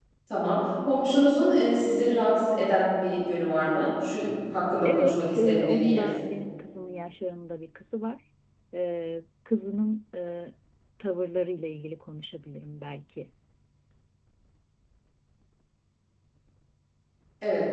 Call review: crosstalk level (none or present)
present